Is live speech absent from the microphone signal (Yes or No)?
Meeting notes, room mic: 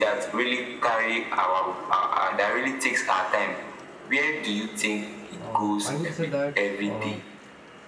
No